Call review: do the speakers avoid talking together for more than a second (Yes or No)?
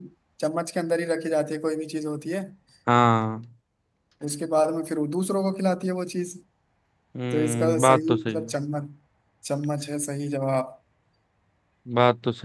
No